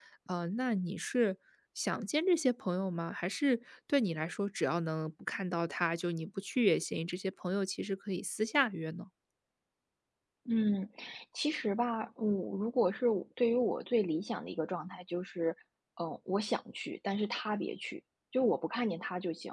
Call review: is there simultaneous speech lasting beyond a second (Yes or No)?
No